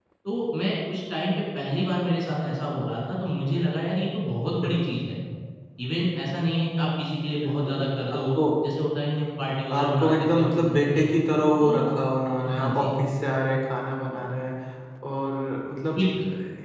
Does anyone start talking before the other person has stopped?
Yes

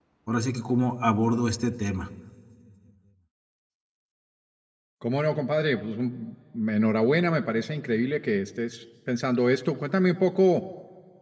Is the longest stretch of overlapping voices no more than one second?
Yes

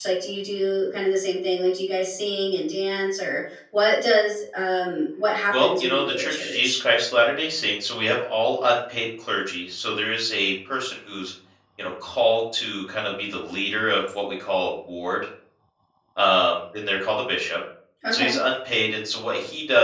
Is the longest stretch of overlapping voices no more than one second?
No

